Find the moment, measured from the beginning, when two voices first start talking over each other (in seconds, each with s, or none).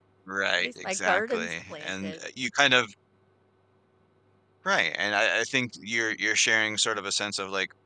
0.6 s